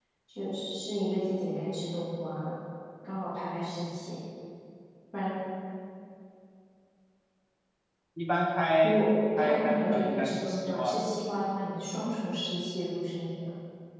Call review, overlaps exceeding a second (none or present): present